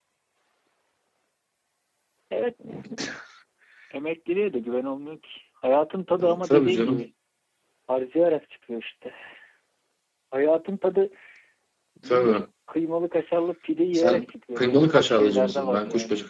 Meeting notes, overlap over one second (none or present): present